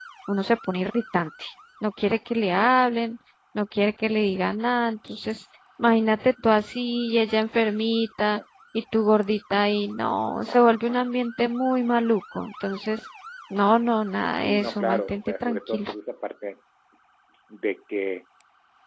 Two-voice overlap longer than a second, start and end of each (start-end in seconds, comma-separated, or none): 14.3-15.9